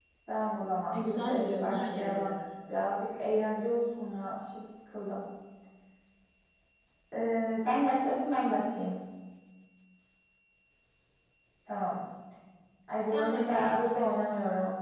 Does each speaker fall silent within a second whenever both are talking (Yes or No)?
No